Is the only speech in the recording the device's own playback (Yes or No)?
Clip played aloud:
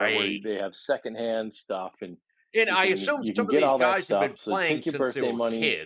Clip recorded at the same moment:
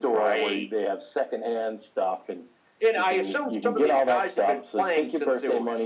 Yes